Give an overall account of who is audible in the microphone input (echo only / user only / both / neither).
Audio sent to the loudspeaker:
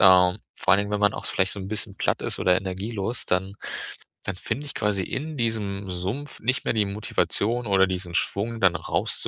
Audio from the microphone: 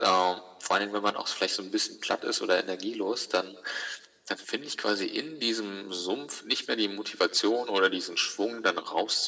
echo only